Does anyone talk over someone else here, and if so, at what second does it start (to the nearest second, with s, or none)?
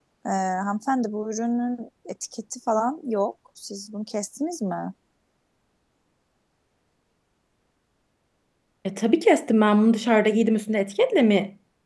none